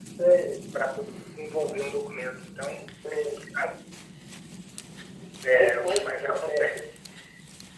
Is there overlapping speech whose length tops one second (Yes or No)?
Yes